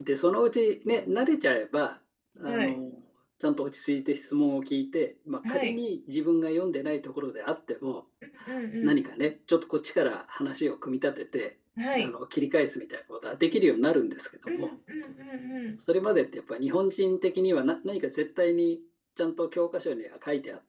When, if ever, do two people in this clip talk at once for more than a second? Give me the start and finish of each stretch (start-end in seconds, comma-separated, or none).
none